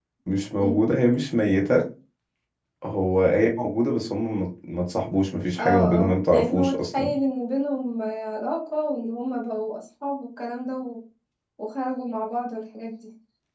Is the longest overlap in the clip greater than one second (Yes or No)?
Yes